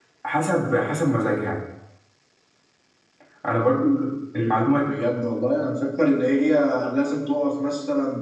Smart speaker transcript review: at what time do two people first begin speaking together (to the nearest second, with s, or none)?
none